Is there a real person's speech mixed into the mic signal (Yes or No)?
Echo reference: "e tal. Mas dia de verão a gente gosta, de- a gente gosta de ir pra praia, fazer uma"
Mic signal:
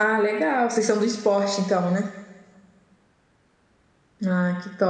Yes